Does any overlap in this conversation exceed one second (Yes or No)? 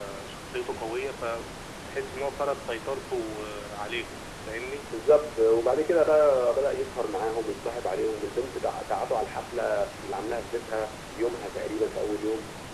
No